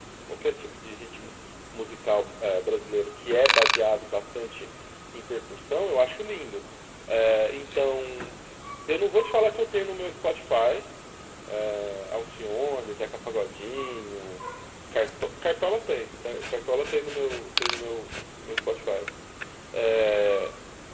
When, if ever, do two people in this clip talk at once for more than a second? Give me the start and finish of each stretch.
none

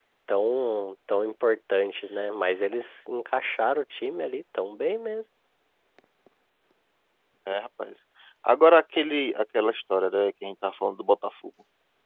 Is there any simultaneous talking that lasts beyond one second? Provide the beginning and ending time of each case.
none

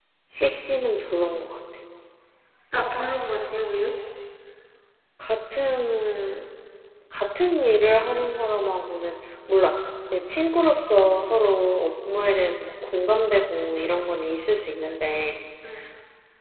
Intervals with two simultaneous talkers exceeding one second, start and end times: none

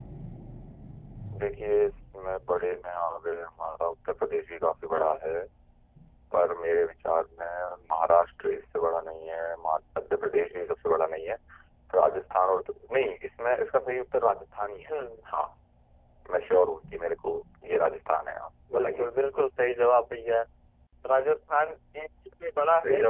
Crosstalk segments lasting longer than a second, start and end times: none

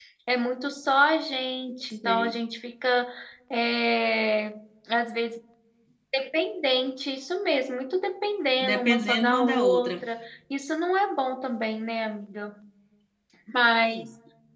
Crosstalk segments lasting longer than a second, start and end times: 8.6-9.9

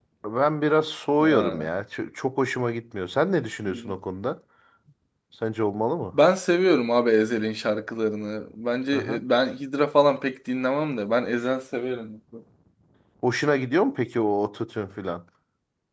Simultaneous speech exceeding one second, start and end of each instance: none

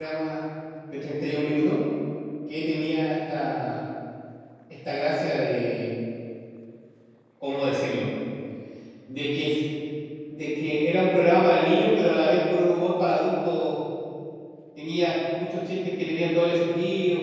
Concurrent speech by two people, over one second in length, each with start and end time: none

